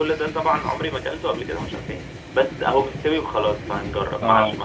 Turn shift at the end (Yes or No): No